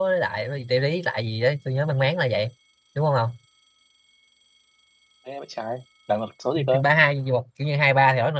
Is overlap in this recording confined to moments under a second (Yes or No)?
Yes